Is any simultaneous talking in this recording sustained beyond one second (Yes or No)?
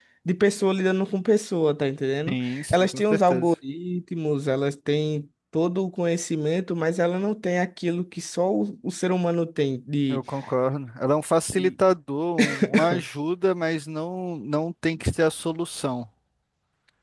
Yes